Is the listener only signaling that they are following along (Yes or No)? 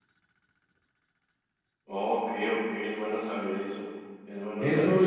No